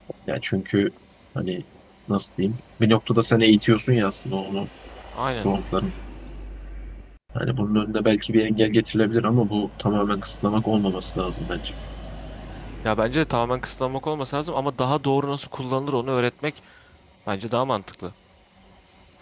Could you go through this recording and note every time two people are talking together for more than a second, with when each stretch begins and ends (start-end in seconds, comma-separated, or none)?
none